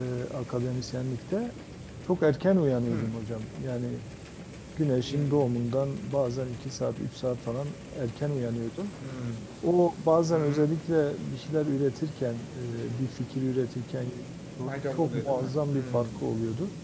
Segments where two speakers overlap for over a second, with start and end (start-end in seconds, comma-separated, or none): 14.9-16.2